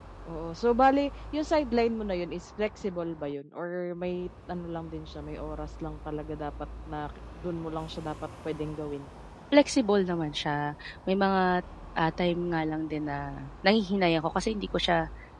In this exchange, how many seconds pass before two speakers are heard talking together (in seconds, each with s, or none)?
none